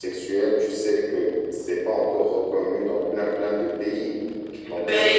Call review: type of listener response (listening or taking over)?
taking over